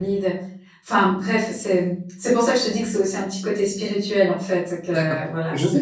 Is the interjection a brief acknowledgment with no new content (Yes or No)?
No